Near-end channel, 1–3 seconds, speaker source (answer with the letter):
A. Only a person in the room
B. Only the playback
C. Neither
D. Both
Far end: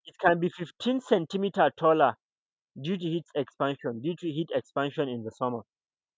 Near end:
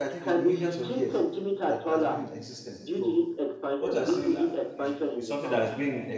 D